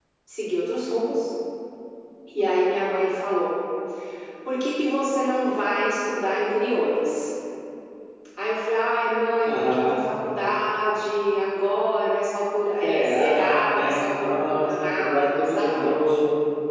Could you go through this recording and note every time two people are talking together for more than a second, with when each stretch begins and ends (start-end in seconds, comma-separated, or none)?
12.8-16.2